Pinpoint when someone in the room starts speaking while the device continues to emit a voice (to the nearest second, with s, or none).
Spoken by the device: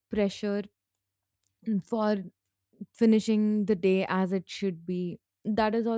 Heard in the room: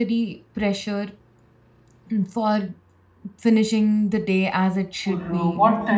5 s